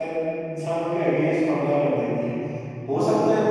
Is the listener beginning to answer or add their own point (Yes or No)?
No